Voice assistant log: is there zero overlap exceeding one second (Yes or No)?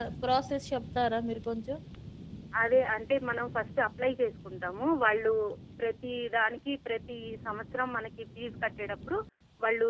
Yes